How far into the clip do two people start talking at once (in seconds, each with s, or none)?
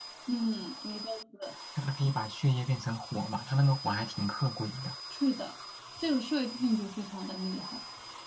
none